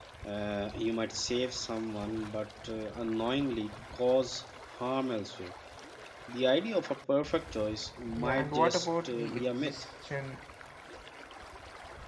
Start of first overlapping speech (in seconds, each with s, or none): 8.2 s